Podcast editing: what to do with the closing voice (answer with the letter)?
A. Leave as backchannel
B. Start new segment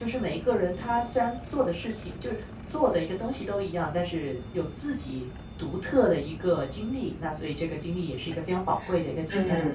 B